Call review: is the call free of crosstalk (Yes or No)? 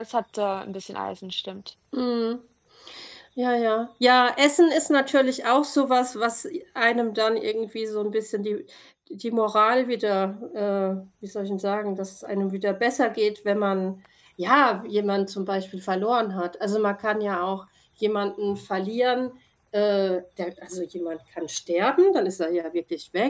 Yes